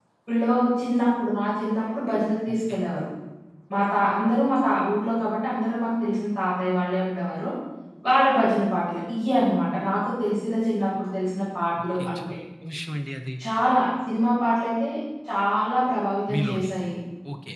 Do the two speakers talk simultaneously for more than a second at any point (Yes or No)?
No